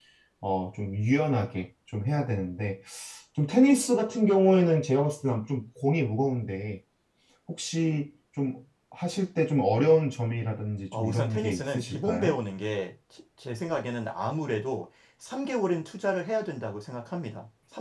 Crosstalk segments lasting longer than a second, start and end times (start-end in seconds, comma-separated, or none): 10.9-12.4